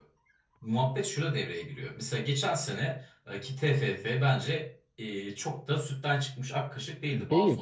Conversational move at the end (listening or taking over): taking over